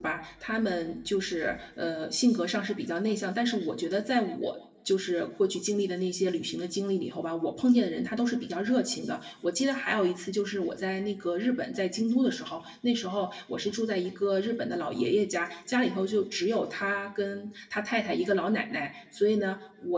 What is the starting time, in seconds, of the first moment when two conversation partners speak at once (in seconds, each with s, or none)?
none